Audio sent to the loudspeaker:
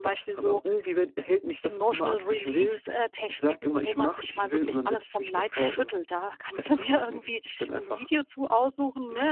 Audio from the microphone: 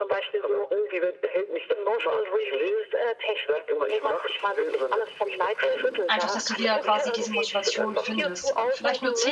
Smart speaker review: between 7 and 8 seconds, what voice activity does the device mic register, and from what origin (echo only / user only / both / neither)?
both